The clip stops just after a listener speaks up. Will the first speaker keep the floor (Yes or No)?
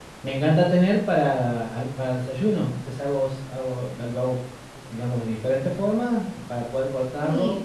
Yes